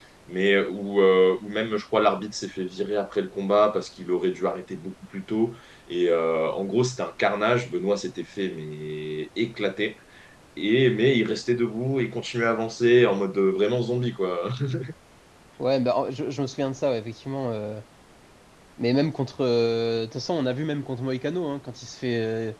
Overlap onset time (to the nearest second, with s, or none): none